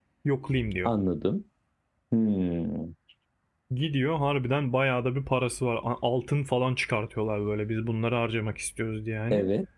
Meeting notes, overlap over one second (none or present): none